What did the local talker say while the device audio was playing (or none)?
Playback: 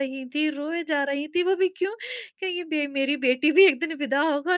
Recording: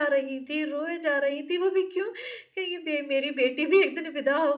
none